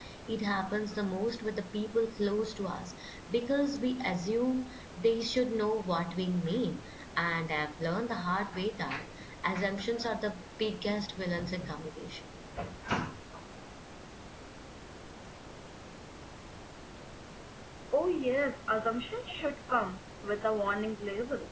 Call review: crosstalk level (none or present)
none